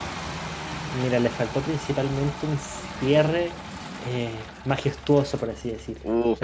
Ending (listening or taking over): taking over